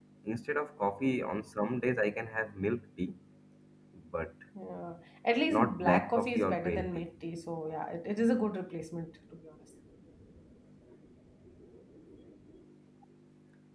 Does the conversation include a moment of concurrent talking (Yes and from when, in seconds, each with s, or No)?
Yes, from 5.5 s